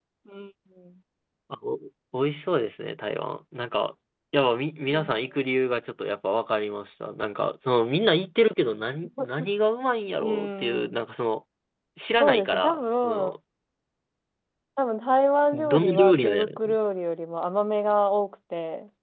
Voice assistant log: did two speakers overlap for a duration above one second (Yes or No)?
Yes